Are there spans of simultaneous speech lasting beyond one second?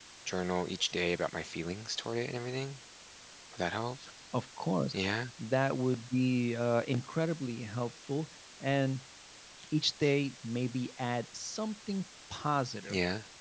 No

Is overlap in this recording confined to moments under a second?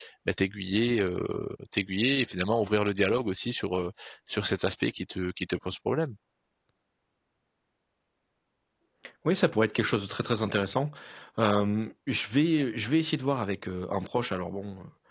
Yes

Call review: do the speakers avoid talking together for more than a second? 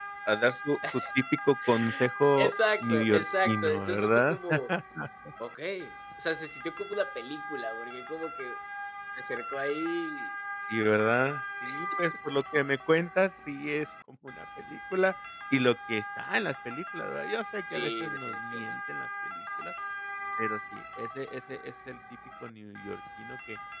No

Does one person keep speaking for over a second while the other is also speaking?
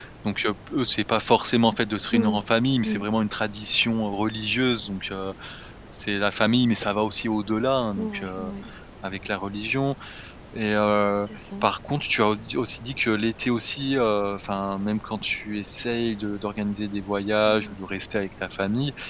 No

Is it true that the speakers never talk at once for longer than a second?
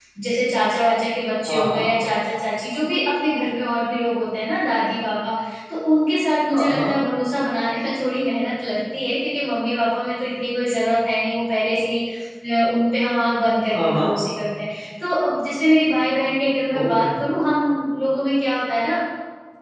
Yes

